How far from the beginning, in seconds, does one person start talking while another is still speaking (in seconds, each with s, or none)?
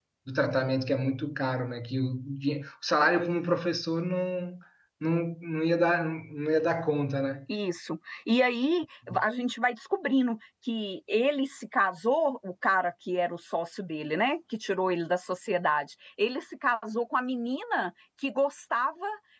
none